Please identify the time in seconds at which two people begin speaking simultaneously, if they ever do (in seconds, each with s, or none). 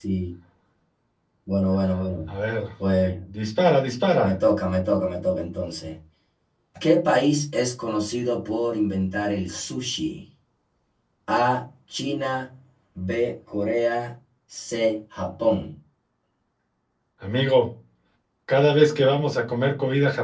none